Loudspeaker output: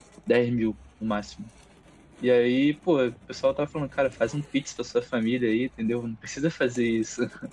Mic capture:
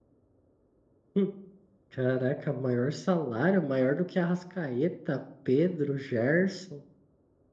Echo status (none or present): none